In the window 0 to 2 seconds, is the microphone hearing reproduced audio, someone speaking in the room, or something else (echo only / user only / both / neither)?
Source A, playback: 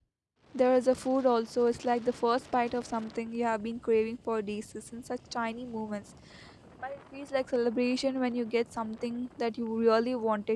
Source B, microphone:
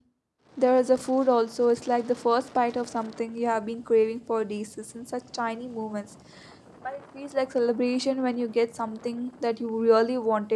echo only